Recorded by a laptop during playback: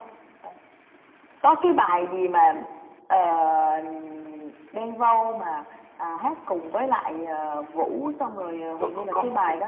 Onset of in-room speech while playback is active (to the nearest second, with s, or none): 9 s